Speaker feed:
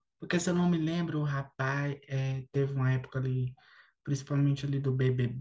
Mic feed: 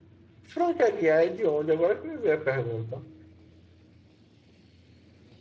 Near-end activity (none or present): present